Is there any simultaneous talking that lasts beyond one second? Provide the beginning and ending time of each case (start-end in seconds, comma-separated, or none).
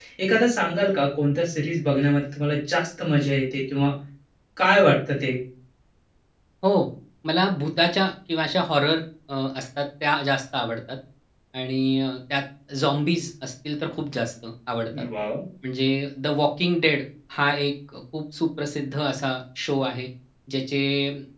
none